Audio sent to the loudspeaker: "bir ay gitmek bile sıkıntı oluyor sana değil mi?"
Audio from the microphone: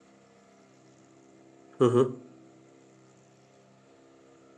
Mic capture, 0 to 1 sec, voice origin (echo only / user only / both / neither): neither